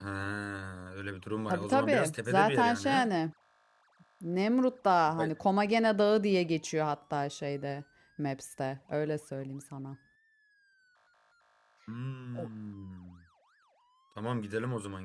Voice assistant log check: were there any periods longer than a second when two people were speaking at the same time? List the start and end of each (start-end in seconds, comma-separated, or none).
1.5-3.0